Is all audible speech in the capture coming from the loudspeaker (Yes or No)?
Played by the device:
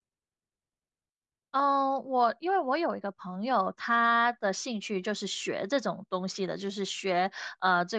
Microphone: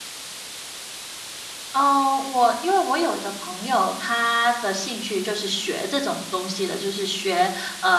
Yes